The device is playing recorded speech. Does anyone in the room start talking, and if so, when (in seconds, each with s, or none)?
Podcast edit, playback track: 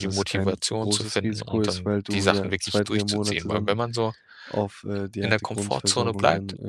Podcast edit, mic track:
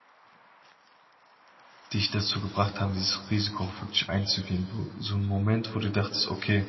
1.9 s